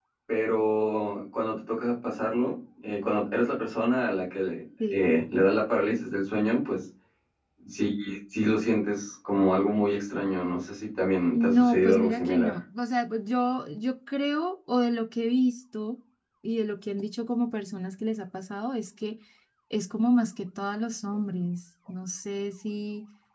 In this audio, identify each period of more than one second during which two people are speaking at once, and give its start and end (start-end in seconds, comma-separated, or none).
11.4-12.6